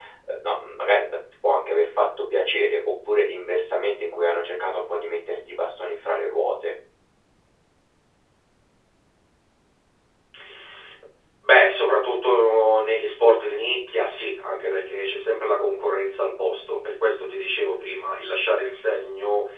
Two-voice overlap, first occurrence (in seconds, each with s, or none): none